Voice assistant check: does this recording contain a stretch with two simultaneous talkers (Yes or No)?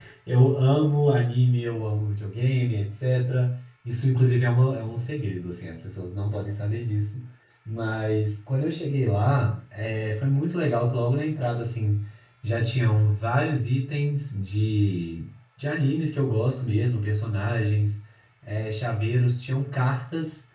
No